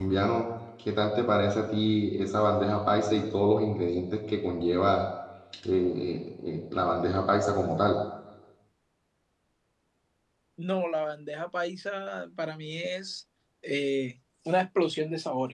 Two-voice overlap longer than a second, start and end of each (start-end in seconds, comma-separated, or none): none